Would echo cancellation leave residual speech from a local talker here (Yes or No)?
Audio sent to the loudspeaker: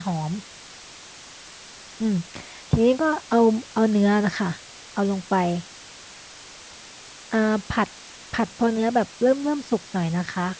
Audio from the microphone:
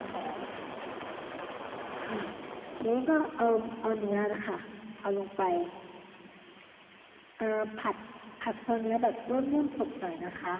No